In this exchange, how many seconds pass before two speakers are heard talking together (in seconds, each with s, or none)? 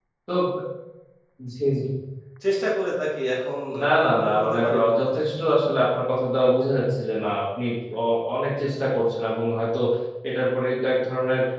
3.7 s